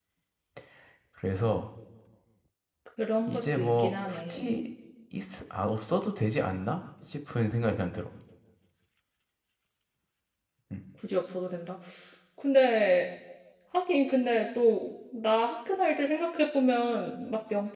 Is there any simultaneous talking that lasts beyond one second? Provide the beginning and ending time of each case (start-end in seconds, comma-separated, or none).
3.2-4.5